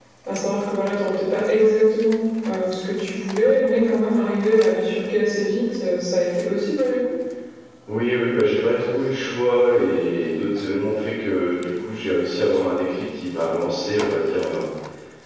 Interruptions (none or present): none